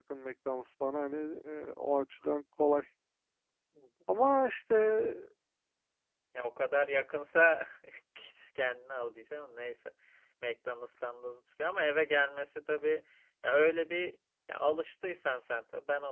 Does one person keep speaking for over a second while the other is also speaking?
No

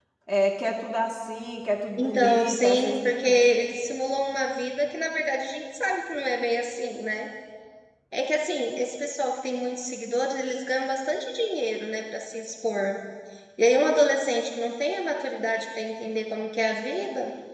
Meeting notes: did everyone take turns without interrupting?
No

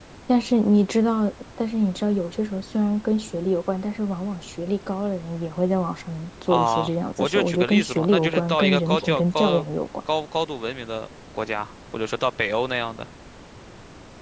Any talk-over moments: Yes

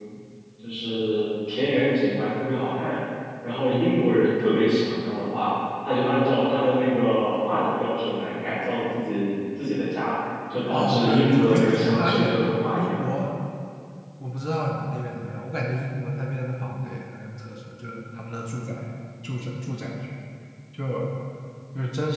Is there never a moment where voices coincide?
No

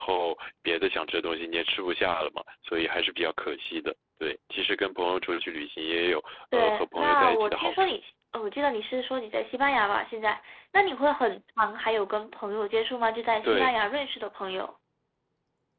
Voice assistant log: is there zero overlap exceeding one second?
No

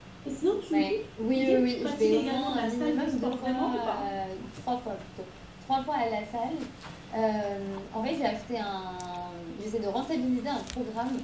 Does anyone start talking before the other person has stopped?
Yes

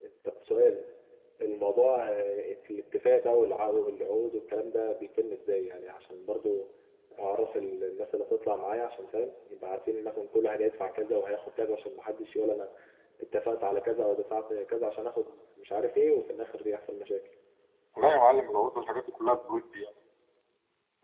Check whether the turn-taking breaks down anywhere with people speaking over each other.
No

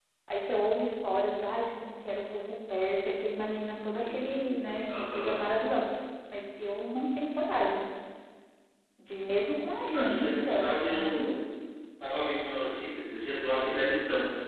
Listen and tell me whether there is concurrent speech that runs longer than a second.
Yes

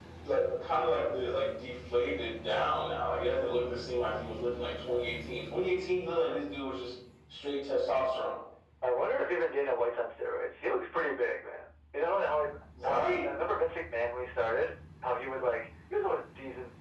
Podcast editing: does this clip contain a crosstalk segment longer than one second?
No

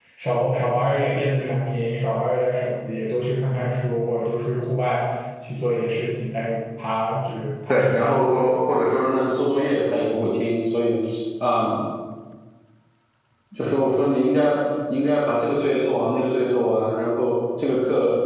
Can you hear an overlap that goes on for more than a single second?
No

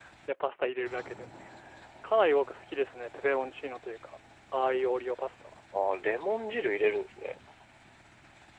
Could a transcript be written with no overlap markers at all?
Yes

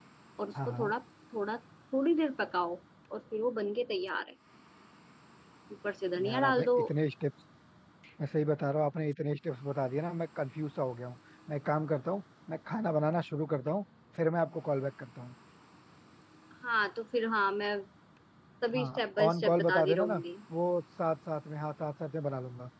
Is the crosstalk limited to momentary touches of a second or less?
No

